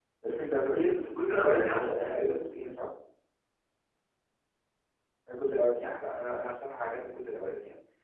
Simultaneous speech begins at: 1 s

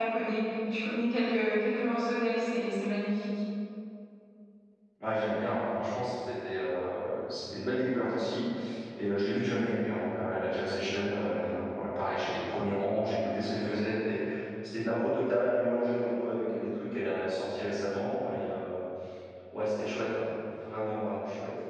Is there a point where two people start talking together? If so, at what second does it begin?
none

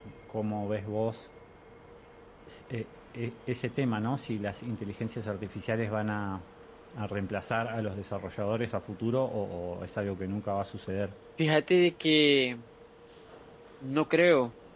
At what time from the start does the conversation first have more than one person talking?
none

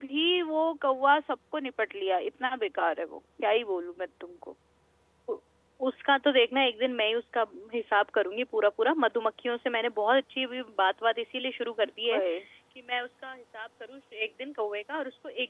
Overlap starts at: none

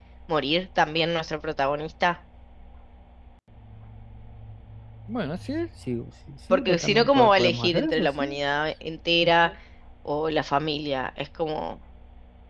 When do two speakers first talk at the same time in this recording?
7 s

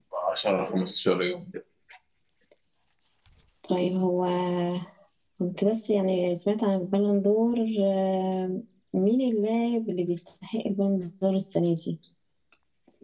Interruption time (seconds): none

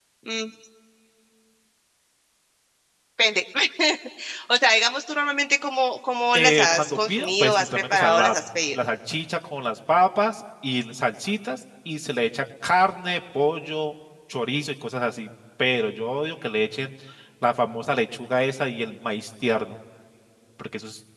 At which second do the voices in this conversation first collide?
6 s

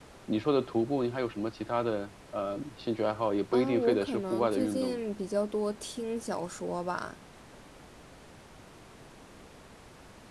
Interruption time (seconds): 4 s

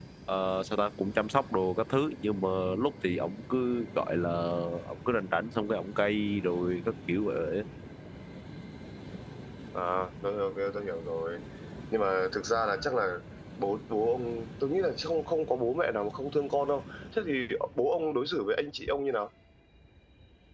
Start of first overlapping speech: none

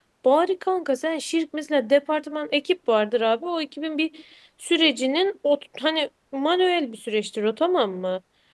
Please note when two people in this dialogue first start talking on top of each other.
none

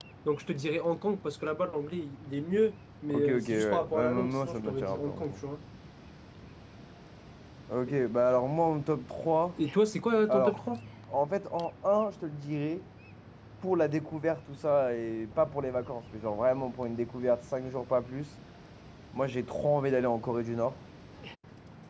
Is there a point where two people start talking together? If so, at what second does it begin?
3 s

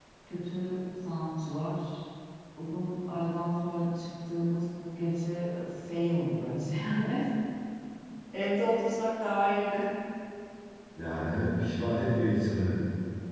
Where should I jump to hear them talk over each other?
none

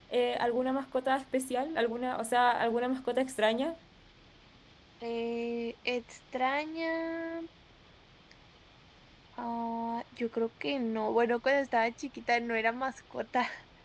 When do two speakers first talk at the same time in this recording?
none

